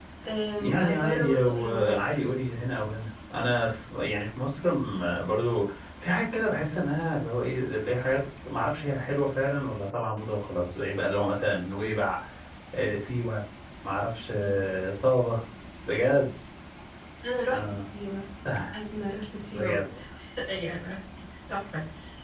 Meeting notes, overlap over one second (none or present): present